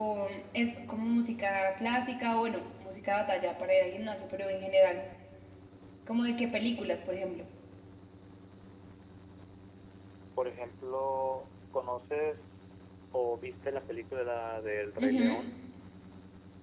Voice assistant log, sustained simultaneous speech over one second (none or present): none